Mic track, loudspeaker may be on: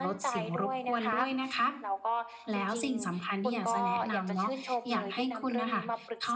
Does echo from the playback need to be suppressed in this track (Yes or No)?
Yes